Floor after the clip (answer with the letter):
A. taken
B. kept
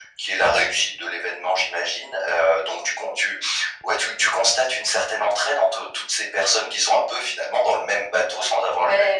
A